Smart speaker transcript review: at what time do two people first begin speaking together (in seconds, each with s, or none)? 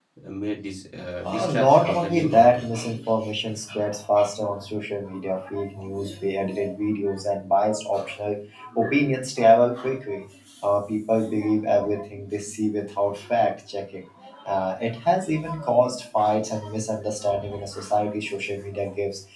1.2 s